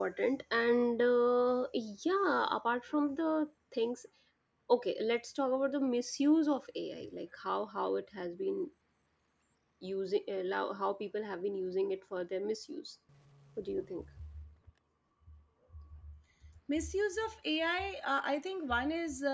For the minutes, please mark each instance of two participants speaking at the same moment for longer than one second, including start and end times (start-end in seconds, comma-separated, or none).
none